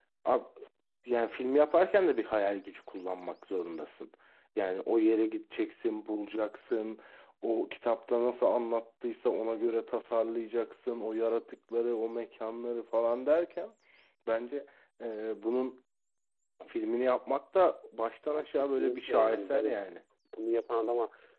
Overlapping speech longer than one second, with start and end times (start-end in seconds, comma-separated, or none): 18.3-19.7